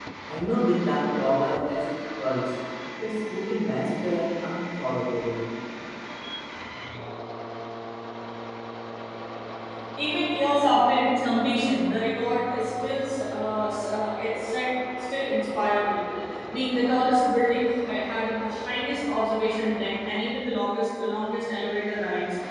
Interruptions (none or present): none